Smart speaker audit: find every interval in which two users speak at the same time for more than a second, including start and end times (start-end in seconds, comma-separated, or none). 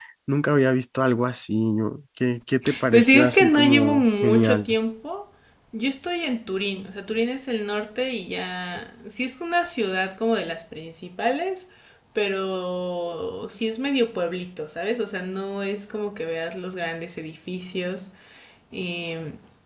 2.9-4.7